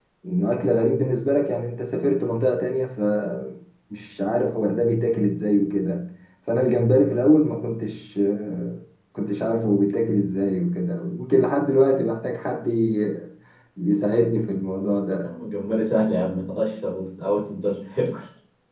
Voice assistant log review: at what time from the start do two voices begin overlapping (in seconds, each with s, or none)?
none